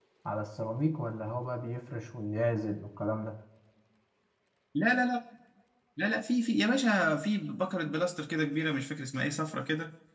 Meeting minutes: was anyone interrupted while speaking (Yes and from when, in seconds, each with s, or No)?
No